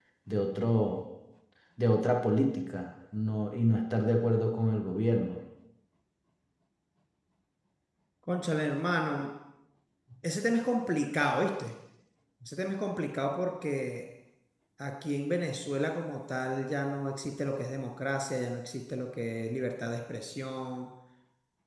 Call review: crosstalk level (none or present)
none